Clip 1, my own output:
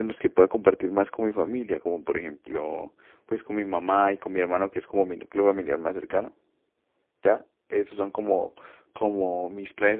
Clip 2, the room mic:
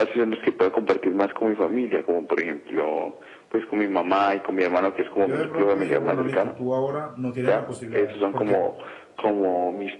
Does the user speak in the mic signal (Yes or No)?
Yes